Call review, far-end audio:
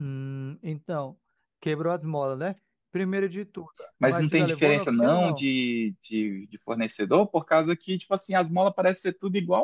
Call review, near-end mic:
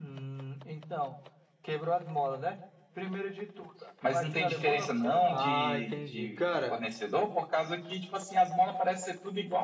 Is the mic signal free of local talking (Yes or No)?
No